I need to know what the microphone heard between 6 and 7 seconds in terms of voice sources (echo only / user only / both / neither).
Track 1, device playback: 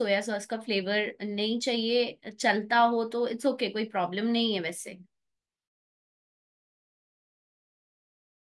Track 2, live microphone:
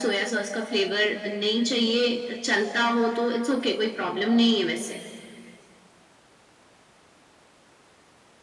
neither